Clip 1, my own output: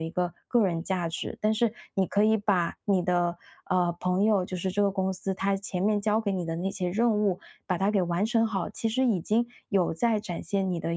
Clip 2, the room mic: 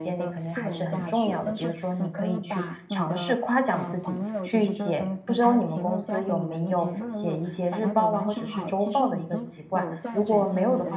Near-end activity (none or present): present